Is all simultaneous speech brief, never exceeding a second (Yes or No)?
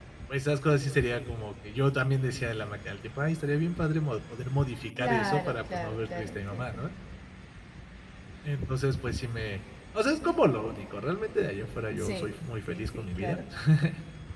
No